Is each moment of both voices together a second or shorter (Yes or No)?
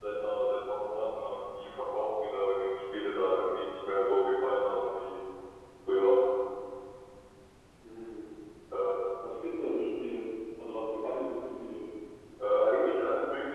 Yes